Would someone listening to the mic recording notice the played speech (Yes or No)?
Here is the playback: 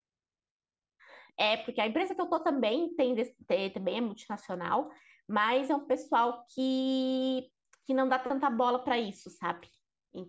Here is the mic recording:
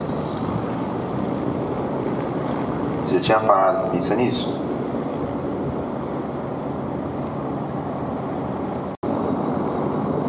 No